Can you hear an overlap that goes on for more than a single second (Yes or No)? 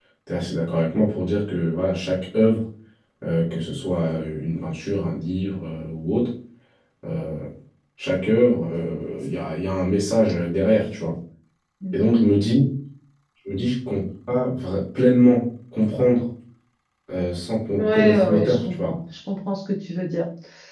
Yes